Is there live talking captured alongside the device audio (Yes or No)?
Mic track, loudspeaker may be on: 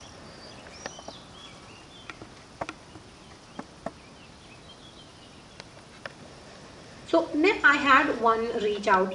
Yes